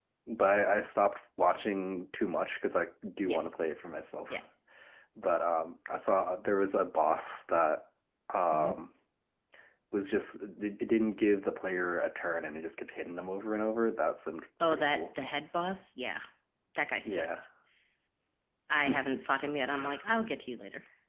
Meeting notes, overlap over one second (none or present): none